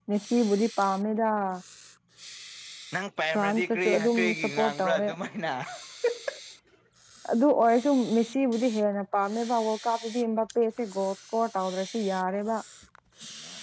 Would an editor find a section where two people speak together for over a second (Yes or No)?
Yes